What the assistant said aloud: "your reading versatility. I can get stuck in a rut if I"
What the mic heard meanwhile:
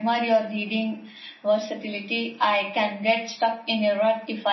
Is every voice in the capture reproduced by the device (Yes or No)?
Yes